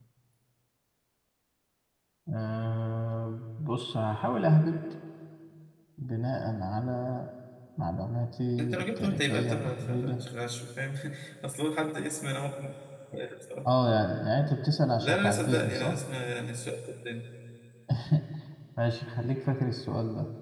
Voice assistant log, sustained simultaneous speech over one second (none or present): present